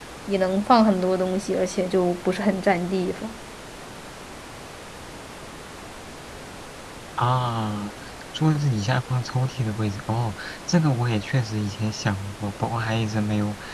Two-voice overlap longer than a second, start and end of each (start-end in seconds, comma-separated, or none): none